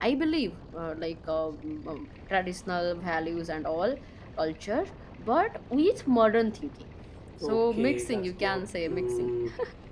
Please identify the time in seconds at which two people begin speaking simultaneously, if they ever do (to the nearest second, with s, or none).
7 s